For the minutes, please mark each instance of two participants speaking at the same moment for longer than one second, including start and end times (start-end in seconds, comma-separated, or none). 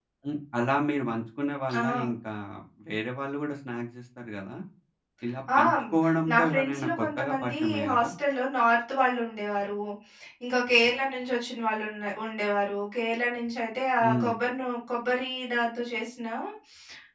6.3-8.1